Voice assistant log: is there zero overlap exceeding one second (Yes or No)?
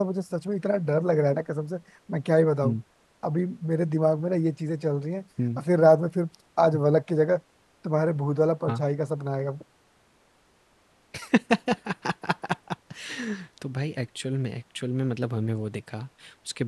Yes